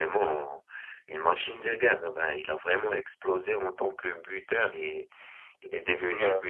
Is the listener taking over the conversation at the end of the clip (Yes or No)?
No